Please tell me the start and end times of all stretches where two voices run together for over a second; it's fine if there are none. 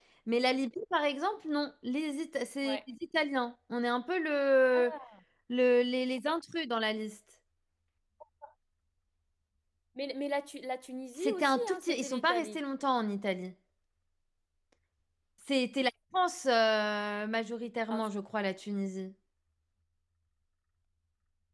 11.2-12.6

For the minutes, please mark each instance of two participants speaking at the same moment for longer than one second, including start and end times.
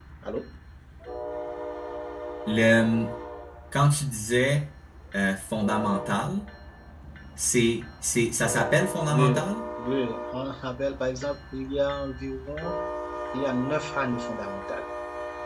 none

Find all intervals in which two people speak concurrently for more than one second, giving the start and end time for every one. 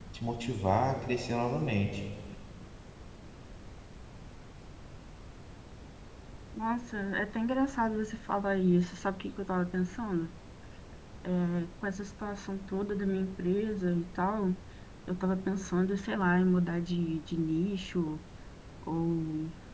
none

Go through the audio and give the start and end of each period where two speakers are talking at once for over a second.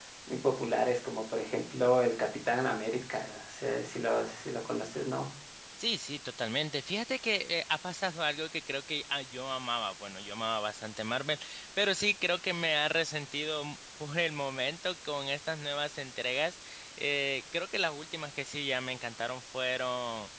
none

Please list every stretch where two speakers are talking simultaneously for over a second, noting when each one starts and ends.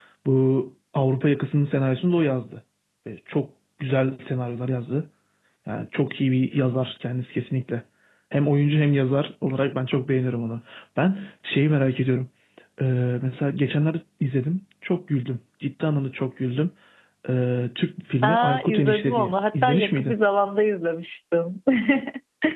18.2-20.1

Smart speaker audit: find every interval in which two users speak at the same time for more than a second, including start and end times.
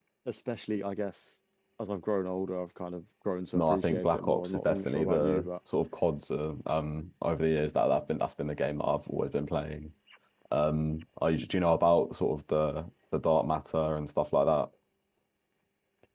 3.5-5.5

